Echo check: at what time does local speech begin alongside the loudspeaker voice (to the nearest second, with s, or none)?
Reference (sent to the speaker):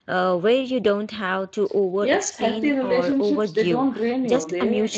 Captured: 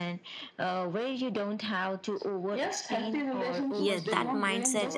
4 s